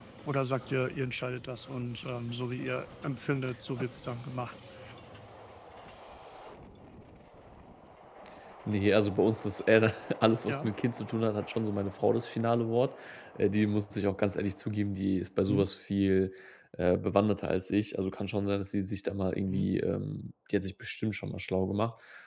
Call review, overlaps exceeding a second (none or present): none